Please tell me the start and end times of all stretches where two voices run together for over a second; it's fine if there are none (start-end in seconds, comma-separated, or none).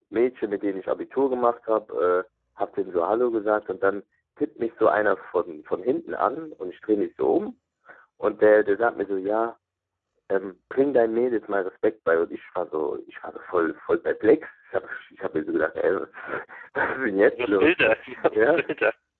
17.3-18.6